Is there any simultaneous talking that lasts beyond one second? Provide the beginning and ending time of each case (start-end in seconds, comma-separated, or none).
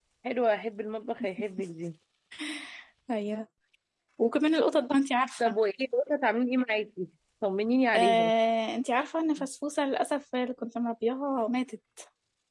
none